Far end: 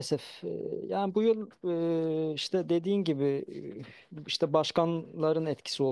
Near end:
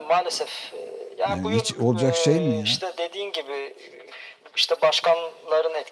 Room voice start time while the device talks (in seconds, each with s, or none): 1.3 s